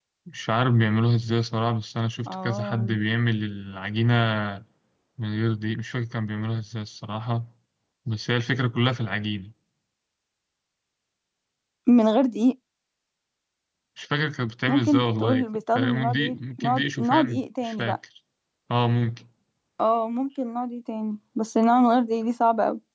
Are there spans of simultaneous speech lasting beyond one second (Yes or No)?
Yes